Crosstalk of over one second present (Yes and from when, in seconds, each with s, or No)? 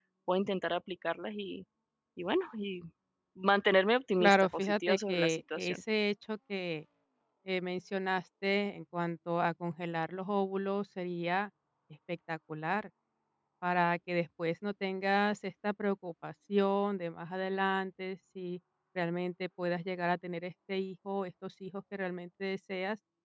Yes, from 4.2 s